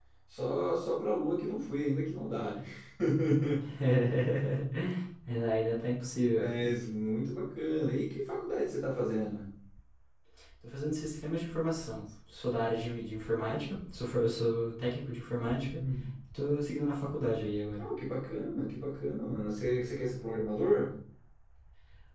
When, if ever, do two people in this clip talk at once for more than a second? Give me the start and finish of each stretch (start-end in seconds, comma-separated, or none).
none